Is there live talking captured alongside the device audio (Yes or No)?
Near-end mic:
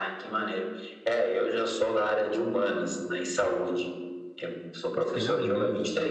Yes